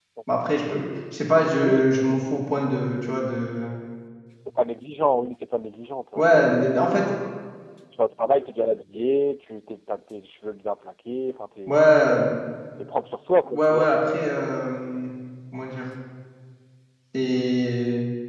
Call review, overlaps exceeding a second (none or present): none